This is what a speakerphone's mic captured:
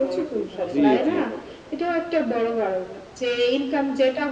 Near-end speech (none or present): present